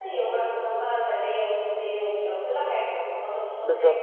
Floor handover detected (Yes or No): No